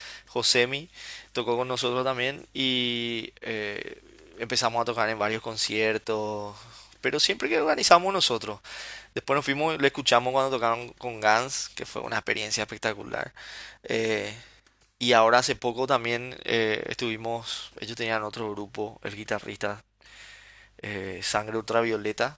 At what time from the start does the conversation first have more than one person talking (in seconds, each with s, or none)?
none